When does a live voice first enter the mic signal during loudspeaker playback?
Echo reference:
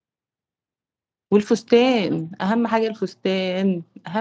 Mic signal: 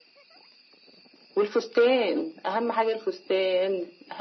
none

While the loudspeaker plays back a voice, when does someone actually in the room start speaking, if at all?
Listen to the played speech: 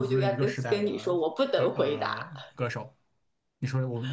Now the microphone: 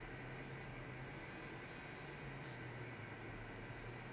none

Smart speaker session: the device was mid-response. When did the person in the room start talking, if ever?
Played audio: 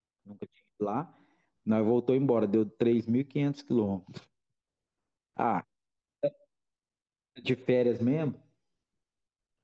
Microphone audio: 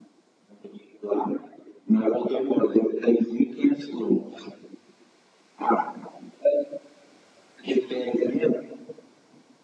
none

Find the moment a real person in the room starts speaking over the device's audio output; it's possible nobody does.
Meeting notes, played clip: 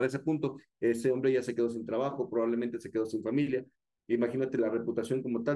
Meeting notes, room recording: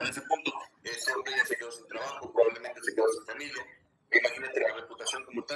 none

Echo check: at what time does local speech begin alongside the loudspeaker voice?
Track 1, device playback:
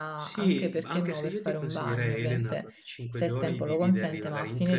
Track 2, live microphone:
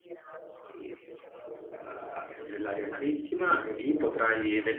1.7 s

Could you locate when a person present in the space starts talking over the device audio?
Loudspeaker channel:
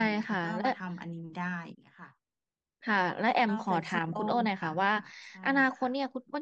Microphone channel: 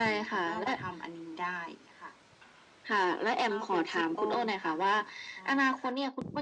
none

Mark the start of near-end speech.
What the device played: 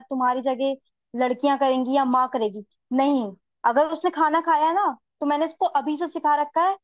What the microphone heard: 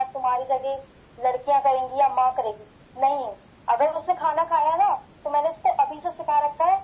none

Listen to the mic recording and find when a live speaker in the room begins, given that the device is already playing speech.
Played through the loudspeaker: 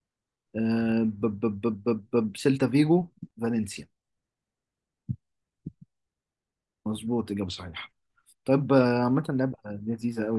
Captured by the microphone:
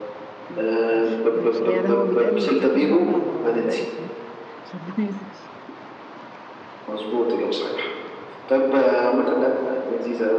0.5 s

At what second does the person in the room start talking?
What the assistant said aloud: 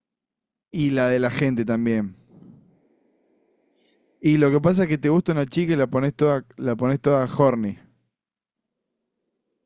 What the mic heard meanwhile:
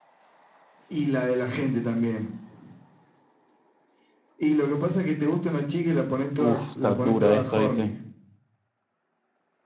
6.4 s

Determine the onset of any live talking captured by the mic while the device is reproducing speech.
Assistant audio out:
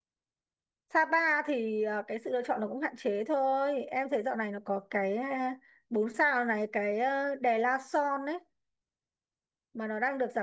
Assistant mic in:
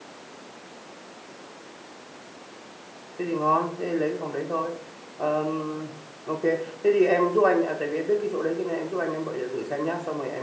3.2 s

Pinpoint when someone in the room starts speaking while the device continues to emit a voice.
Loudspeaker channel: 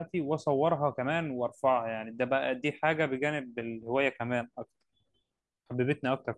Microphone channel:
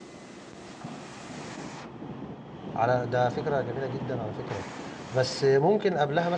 2.8 s

